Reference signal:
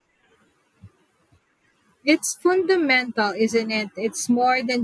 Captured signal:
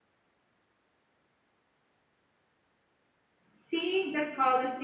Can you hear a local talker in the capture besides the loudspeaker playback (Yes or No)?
Yes